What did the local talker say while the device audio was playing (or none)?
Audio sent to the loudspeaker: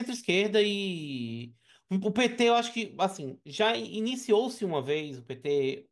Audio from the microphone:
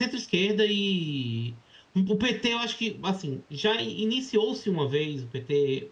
none